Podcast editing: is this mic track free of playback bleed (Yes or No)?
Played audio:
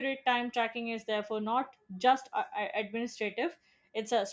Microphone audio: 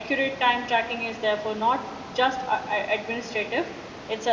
No